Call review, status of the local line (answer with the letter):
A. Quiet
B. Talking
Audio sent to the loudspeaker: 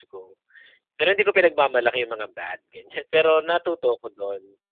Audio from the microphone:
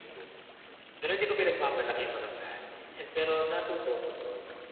A